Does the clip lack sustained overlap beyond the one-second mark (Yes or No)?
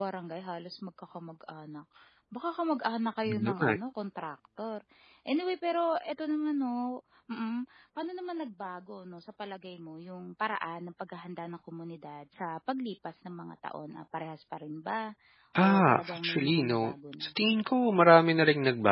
No